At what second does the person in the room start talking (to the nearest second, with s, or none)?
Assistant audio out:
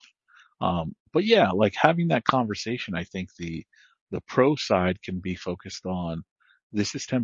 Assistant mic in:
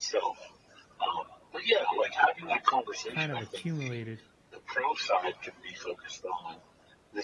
3 s